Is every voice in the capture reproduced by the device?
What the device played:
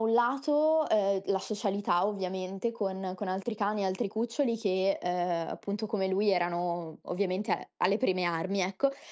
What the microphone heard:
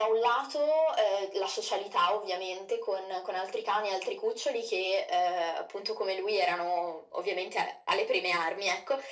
Yes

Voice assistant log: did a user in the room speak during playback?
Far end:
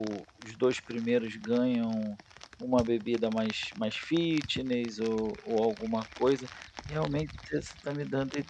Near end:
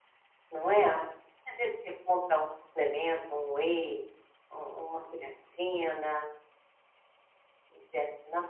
Yes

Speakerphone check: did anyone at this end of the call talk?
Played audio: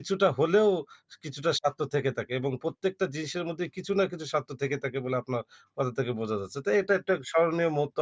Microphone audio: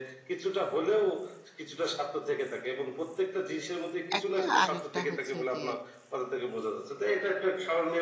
Yes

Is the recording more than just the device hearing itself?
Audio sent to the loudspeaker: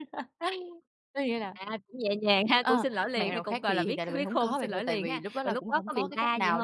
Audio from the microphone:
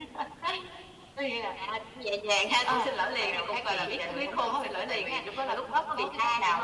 No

